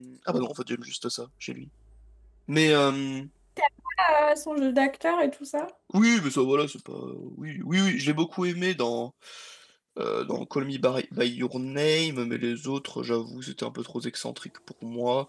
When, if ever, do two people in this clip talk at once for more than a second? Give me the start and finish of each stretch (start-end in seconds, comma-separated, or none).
none